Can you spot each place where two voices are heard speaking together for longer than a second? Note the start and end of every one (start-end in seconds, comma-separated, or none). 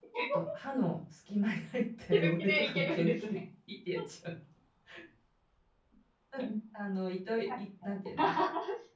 2.1-3.4